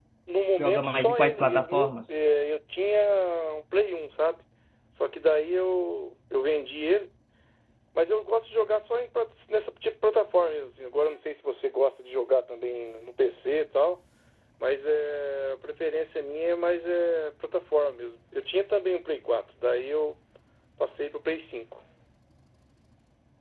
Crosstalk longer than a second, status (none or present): present